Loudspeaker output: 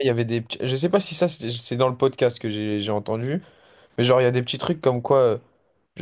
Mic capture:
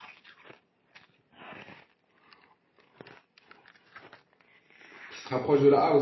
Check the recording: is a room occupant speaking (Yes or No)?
Yes